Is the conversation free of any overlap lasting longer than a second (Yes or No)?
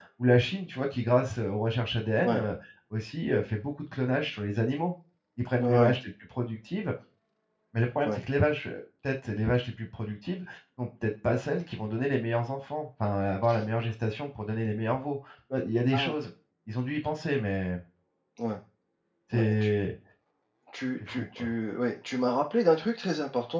Yes